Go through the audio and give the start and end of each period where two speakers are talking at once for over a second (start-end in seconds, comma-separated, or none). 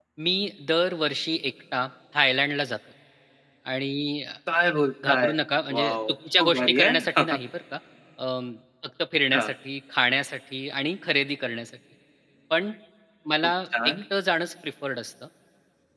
5.7-7.2